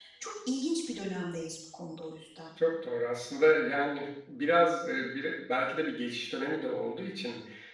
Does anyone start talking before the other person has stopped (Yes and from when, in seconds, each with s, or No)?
No